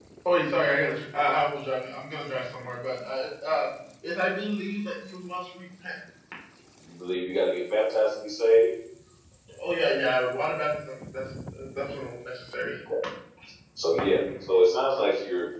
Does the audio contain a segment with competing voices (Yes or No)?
No